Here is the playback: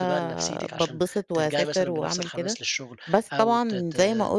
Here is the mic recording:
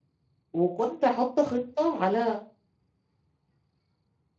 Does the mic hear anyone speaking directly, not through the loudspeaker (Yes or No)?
Yes